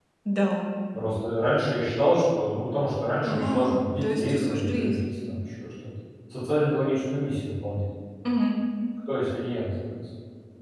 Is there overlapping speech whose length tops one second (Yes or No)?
Yes